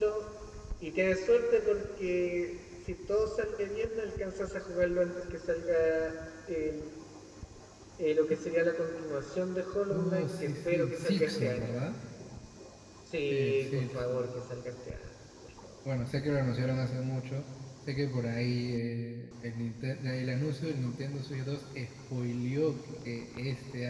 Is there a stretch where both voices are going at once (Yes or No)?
Yes